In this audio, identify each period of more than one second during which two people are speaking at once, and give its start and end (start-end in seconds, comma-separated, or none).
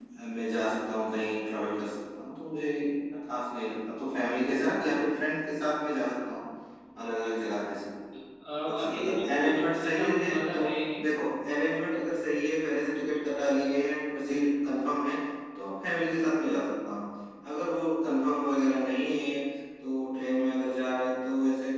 8.8-10.6